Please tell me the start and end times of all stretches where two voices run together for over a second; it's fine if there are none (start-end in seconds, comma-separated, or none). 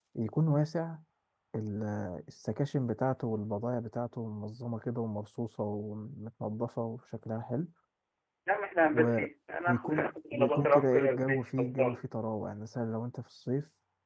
9.7-12.0